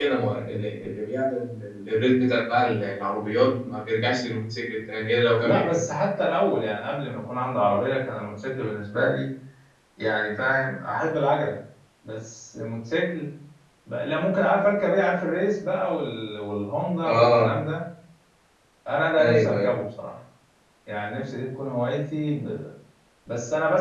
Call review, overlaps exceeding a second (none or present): none